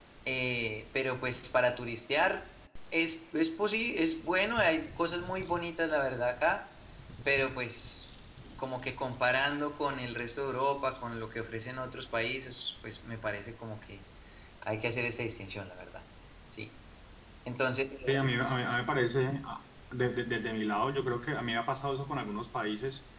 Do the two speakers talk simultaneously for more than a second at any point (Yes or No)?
No